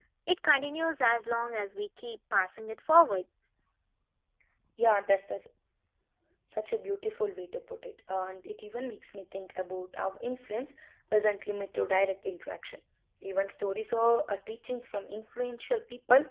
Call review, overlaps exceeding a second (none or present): none